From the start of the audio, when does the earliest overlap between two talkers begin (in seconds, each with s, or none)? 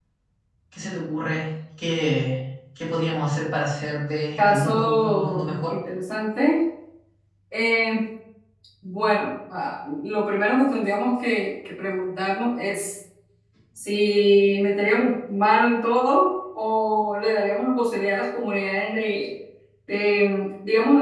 4.4 s